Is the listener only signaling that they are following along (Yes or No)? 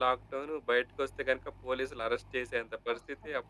Yes